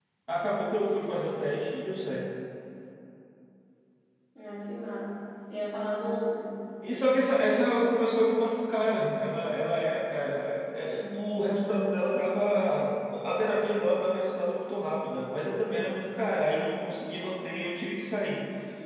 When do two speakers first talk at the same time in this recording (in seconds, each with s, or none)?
none